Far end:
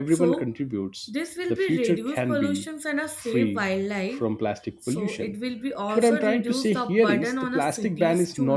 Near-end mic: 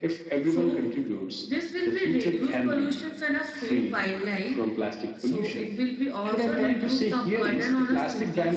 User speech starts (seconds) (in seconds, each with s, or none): none